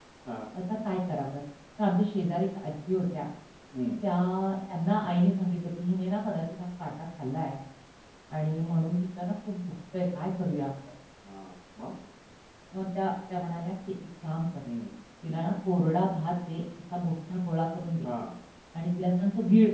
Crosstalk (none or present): none